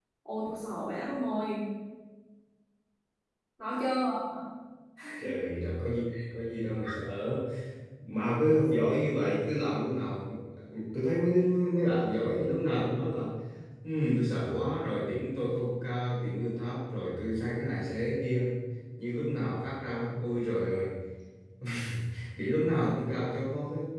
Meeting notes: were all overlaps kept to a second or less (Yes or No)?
Yes